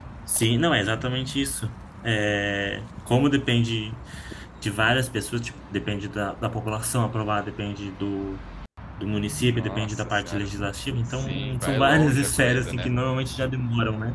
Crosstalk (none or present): present